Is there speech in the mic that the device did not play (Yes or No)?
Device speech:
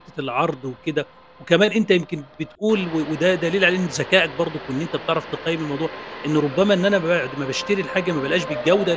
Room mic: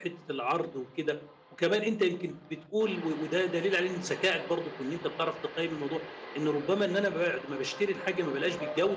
No